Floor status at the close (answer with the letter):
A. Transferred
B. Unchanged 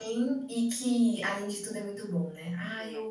A